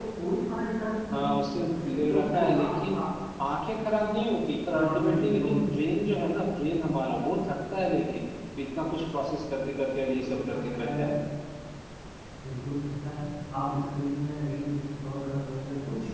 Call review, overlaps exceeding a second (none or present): present